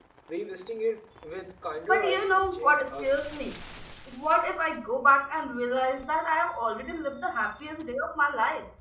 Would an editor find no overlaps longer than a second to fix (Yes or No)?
No